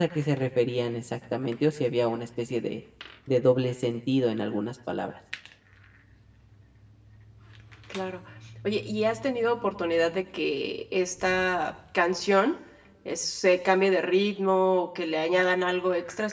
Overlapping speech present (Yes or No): No